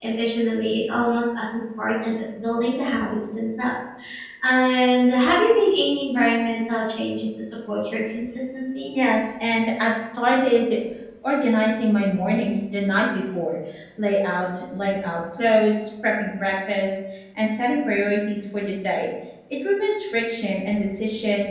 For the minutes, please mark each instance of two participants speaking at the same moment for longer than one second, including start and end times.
none

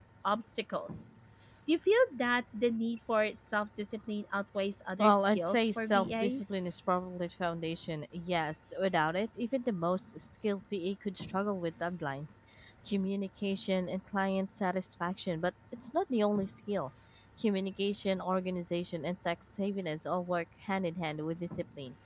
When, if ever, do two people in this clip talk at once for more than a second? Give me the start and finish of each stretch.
5.0-6.6

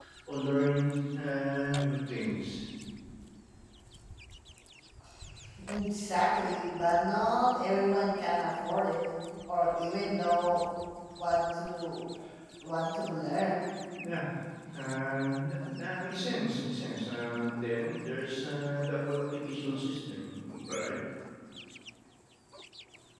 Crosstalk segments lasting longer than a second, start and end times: none

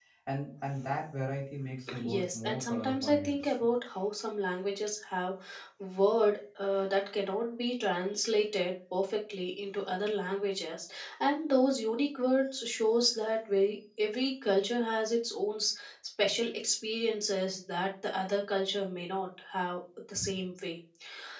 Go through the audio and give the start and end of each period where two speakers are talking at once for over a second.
2.0-3.7

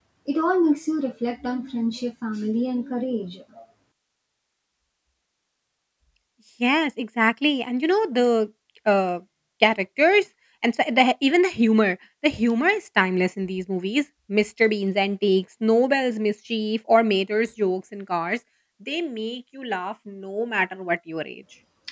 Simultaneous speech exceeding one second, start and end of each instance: none

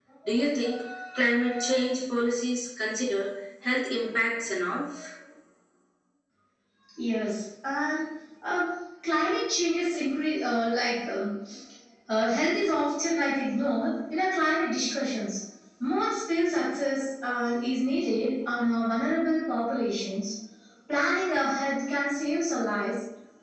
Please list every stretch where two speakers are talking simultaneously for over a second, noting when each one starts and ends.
none

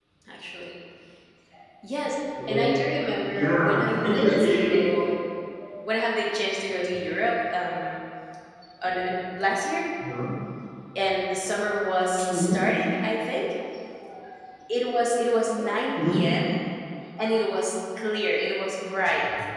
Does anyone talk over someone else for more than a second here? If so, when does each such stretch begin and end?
3.3-5.1

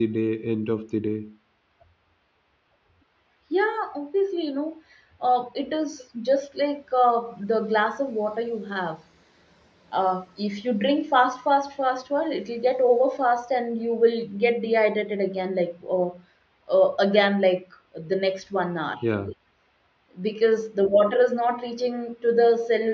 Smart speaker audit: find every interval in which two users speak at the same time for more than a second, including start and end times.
none

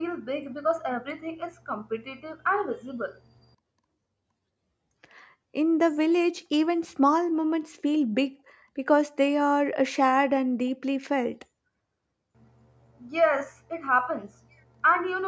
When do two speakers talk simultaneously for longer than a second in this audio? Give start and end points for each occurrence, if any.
none

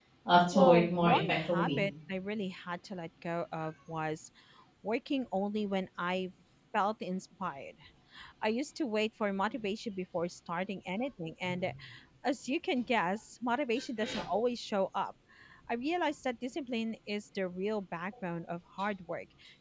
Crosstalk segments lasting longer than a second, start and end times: 0.5-1.8

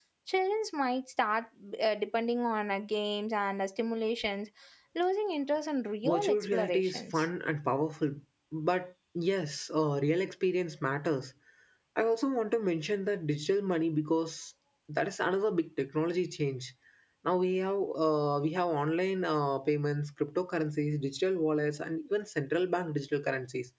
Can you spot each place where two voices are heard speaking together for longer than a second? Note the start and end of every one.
6.0-7.3

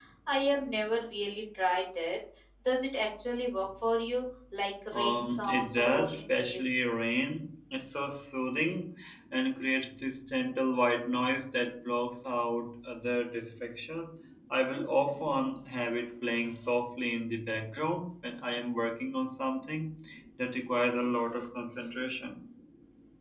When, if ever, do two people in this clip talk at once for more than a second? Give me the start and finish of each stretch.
4.9-6.9

